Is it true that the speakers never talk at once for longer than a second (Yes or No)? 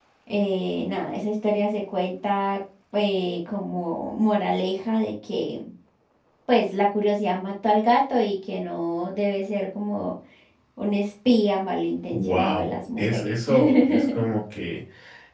No